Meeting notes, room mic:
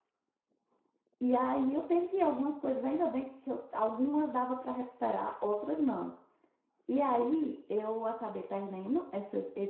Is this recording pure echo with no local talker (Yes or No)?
No